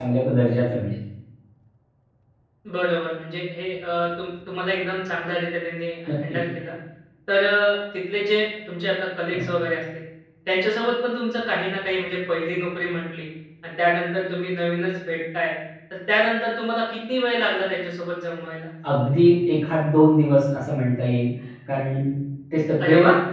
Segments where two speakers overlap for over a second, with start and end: none

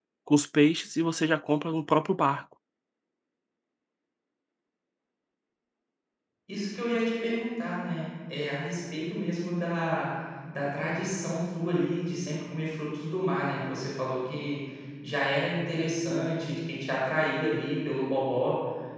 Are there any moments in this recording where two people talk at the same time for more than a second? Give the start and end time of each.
none

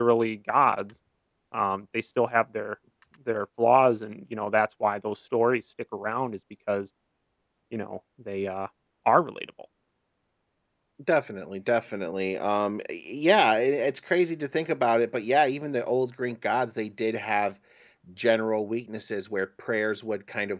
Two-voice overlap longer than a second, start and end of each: none

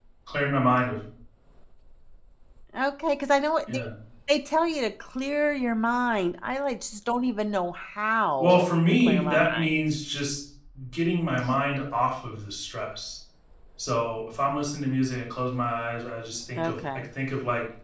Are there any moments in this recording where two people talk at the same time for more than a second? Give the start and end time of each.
8.4-9.8

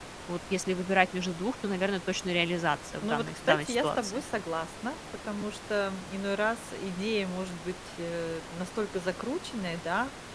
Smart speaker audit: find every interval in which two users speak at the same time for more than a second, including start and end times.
3.0-4.2

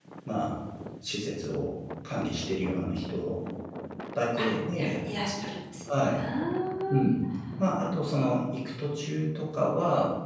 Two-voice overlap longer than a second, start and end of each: none

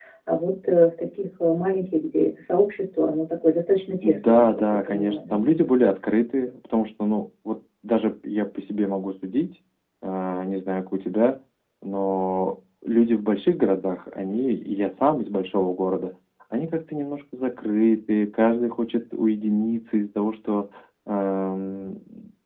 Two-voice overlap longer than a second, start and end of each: 4.0-5.4

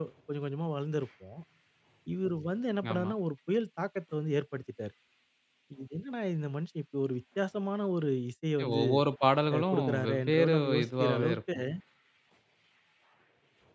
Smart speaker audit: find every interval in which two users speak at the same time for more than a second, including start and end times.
9.5-11.4

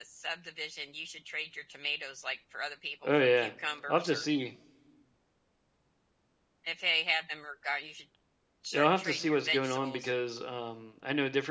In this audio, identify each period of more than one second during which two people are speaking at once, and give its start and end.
8.7-10.1

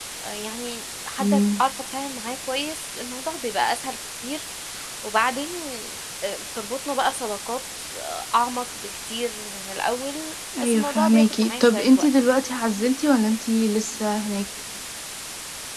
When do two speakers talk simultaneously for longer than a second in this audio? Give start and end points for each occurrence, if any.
10.6-12.4

